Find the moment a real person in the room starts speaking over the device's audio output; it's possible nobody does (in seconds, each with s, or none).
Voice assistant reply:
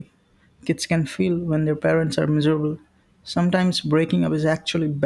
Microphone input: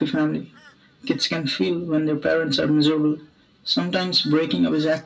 none